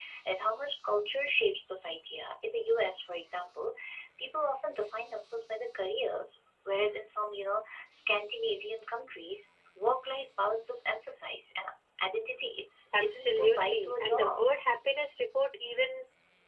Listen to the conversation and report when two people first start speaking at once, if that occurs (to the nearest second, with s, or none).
13 s